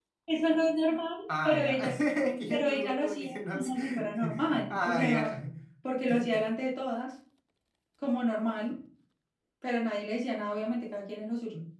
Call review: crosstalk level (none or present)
present